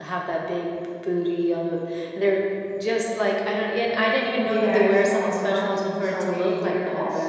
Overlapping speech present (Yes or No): Yes